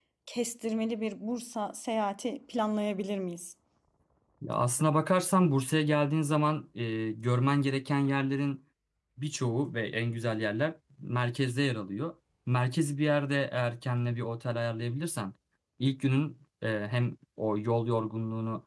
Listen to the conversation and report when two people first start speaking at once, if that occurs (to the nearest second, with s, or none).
none